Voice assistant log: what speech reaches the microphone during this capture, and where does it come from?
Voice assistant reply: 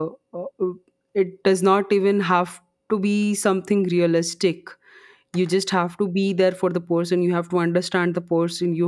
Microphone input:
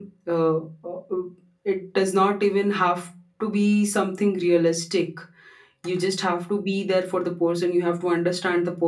echo only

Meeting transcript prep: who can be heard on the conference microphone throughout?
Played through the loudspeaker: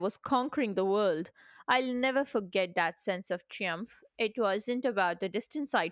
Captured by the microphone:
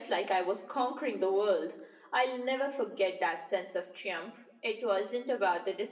echo only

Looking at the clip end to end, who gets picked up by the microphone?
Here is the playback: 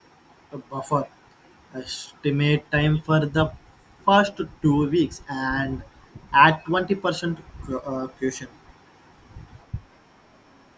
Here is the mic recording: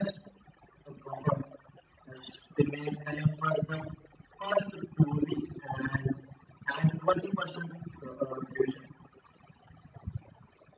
echo only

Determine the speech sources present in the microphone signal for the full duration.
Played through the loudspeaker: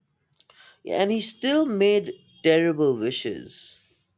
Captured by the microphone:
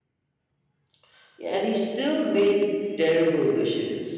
echo only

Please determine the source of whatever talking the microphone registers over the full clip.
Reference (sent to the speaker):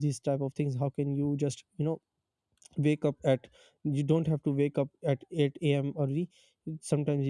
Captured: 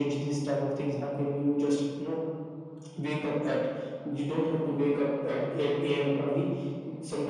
echo only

